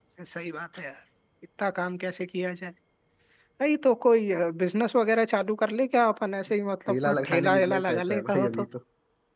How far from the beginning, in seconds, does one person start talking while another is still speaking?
7 s

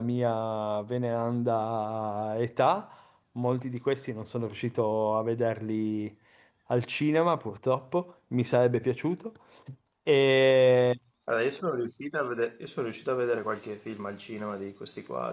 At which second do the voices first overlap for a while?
none

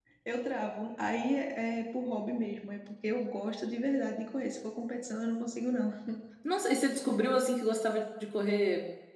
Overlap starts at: none

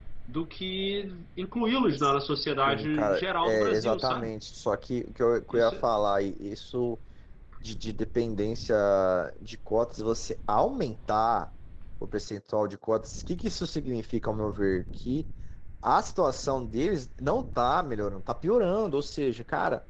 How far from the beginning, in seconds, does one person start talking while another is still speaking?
3 s

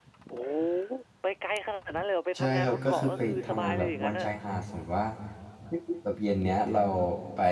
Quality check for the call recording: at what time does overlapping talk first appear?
2 s

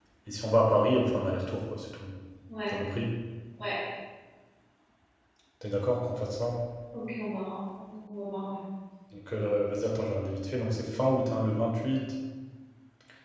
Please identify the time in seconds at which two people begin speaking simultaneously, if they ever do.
none

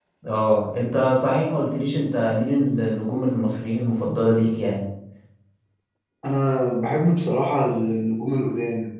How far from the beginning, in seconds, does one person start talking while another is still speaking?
none

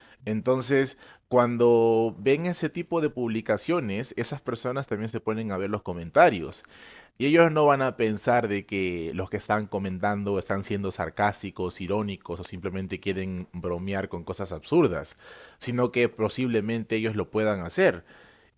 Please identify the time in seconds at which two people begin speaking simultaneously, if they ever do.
none

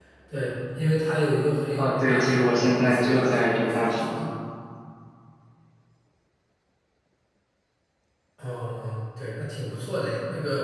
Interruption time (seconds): 2 s

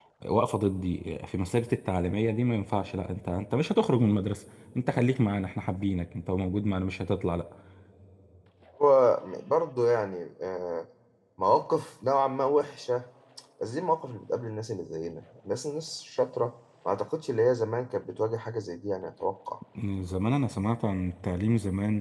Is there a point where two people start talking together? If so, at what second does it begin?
none

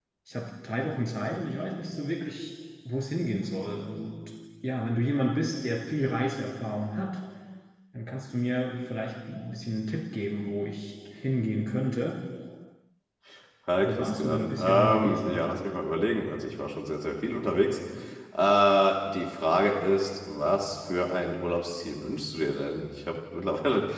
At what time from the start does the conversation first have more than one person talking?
14 s

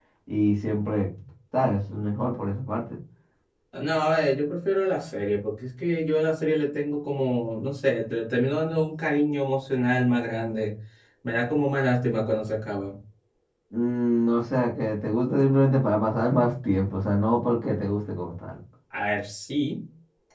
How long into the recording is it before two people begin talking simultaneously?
none

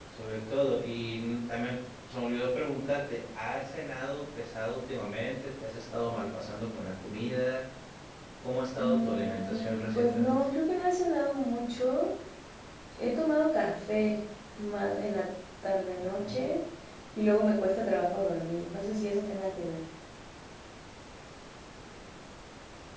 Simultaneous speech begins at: 9 s

